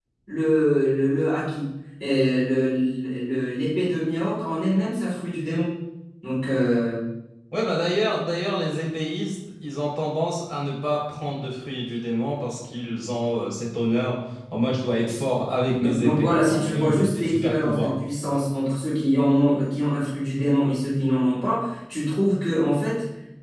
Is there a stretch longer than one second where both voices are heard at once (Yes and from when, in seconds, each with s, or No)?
Yes, from 15.7 s